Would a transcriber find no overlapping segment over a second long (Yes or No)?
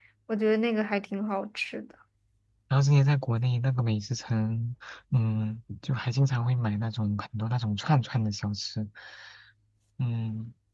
Yes